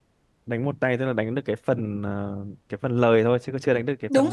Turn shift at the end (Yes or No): Yes